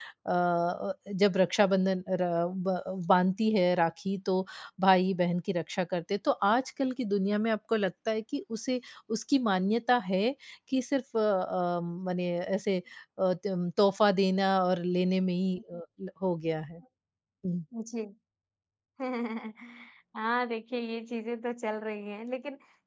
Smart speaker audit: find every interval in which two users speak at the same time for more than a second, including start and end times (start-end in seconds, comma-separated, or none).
none